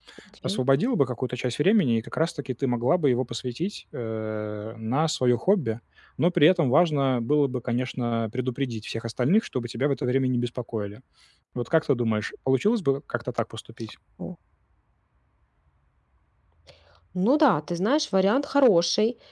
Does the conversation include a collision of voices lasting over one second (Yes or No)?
No